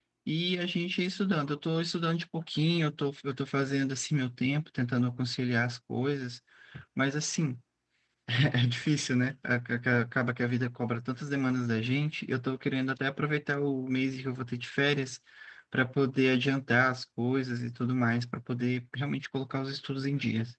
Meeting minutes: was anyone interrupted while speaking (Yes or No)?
No